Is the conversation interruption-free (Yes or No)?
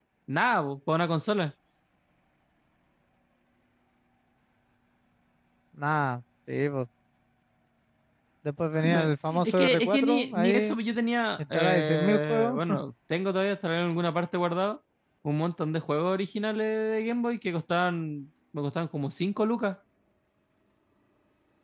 No